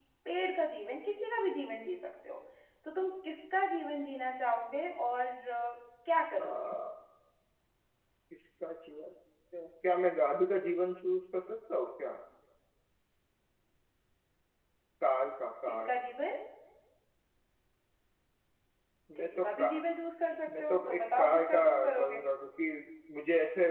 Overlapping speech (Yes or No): Yes